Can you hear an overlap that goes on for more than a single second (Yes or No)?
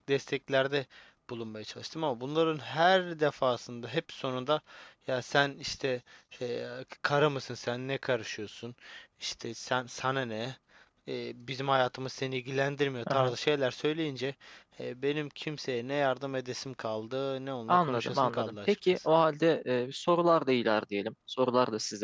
Yes